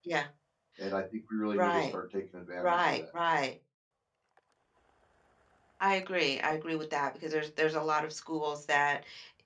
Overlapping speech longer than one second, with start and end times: none

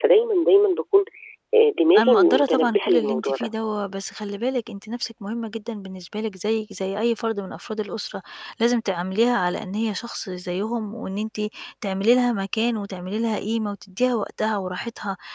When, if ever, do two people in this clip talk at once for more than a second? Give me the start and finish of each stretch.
2.0-3.5

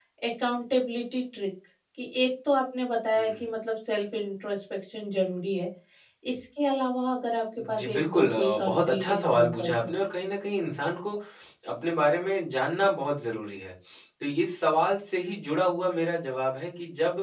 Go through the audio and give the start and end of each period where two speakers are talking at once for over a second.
7.7-9.9

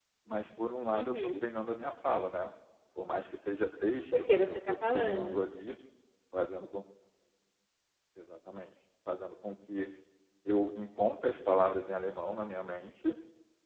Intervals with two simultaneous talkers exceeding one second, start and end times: 4.2-5.4

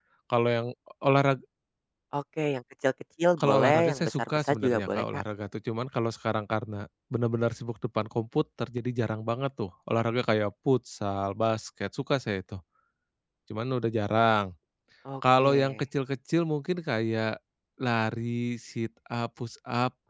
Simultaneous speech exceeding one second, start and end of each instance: 3.4-5.2

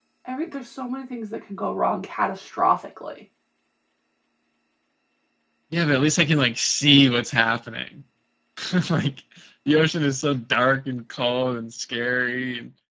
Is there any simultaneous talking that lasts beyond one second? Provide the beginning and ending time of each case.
none

